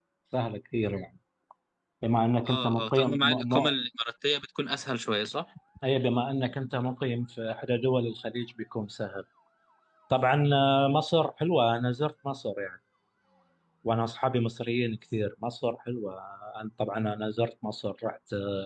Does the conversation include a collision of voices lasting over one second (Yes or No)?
Yes